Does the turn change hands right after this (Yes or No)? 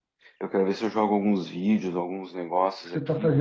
Yes